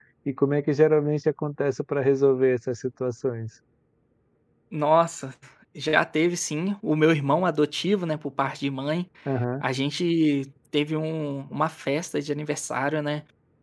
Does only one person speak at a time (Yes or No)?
Yes